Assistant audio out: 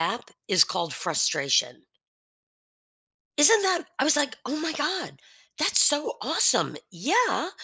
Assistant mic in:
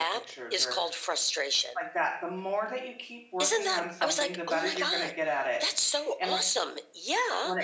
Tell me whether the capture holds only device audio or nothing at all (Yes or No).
No